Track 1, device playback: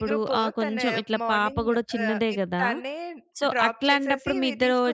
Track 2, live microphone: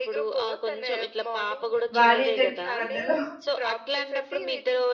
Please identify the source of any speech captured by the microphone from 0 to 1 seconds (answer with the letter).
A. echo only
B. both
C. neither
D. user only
A